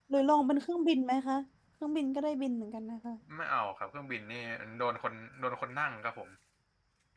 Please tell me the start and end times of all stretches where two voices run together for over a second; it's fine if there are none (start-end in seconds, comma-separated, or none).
none